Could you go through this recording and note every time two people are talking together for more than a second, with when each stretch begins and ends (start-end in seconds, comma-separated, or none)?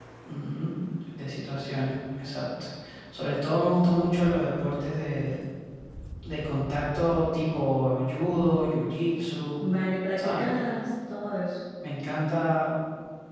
none